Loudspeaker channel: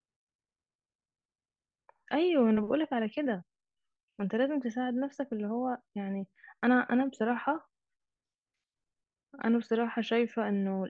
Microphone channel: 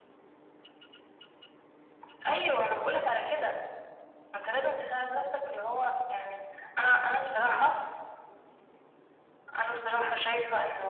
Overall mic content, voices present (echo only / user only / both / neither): echo only